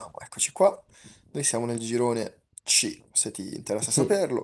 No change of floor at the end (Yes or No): No